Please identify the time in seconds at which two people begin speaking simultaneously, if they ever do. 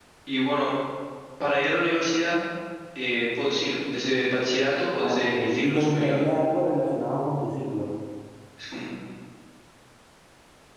5.0 s

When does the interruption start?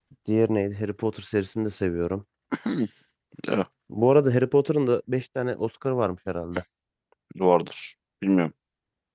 none

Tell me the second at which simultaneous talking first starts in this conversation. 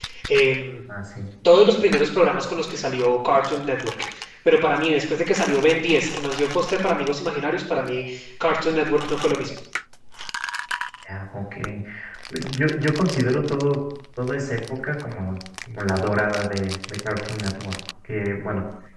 none

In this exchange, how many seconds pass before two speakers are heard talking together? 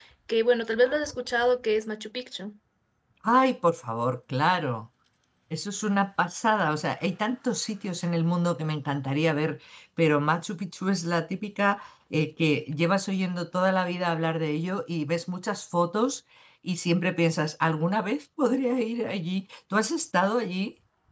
none

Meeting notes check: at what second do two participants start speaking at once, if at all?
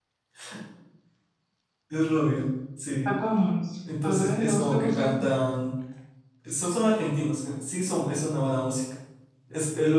4.0 s

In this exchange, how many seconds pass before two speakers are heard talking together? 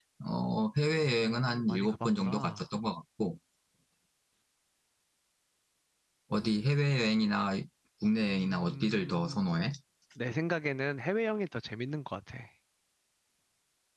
1.0 s

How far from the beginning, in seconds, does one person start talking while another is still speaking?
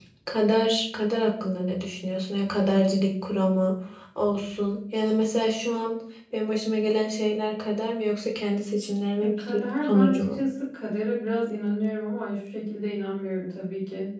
9.2 s

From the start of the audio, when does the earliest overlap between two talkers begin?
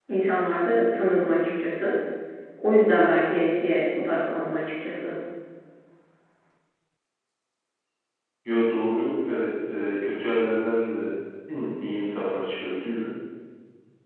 none

